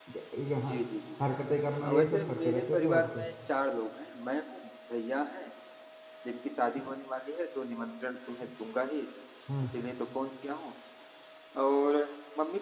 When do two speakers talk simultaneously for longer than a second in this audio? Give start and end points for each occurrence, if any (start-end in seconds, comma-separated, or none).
1.8-3.2